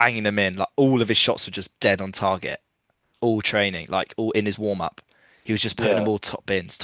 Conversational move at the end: listening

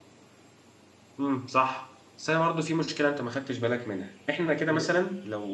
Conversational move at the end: listening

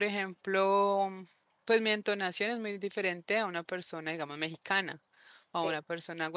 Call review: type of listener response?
listening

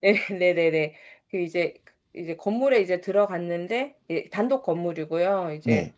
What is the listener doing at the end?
listening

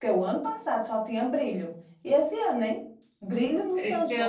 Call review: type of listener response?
taking over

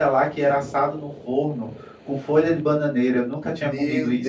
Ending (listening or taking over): taking over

